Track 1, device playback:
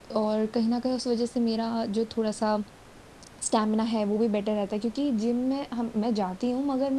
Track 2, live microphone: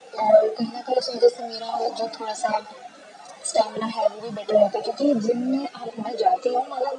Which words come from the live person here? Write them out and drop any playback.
none

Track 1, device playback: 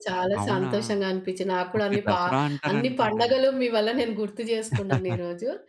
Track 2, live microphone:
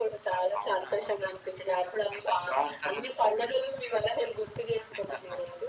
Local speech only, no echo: none

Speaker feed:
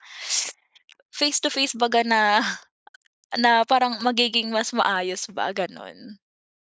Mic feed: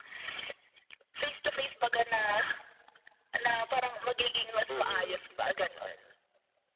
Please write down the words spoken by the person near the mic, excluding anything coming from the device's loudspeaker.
Mm.

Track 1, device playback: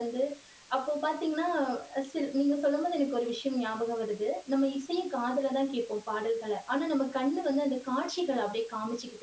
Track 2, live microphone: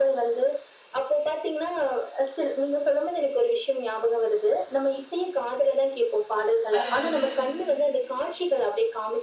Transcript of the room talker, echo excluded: அத வந்து

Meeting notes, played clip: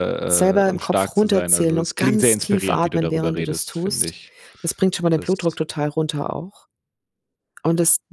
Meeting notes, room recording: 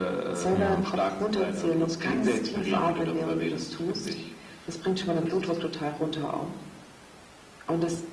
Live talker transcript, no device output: Ja.

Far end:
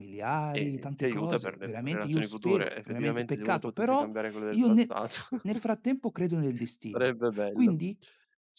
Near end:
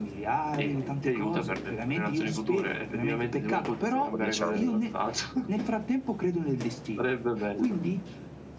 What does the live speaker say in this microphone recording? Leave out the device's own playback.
dopo 10 anni

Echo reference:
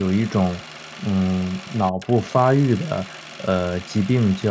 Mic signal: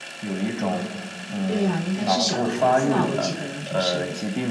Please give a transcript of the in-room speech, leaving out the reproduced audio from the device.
对啊，应该是小孩子吧？我记得就是，

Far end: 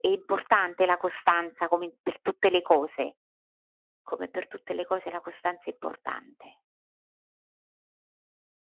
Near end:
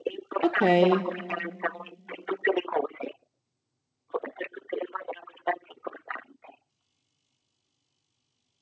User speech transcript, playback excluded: Okay,

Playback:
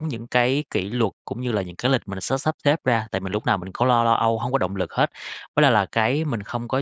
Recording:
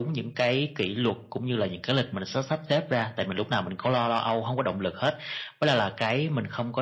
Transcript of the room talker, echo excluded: none

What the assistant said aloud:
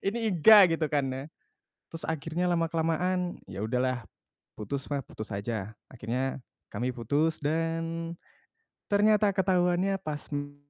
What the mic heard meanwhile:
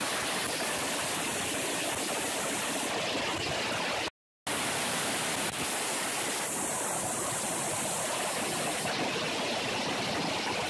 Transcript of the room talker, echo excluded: none

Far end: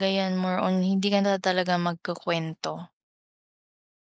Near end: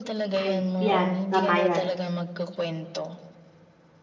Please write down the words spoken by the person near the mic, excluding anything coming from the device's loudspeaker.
Ay yan, tama yan.

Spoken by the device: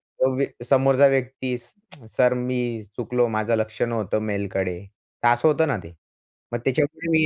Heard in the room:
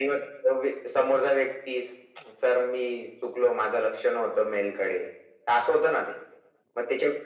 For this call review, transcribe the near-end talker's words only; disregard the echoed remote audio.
none

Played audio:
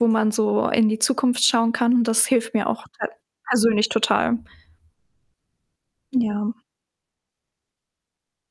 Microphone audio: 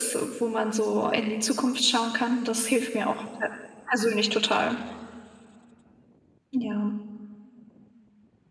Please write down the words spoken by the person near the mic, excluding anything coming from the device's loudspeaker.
none

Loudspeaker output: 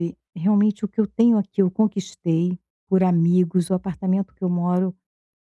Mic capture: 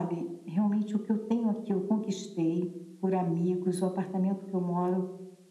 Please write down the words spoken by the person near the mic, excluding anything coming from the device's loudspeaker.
none

